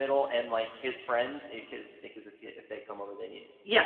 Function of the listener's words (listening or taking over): listening